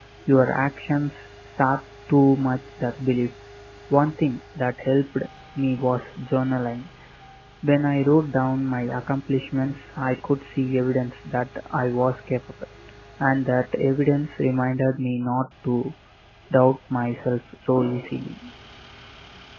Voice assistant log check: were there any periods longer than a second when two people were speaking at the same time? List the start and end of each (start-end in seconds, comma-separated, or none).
none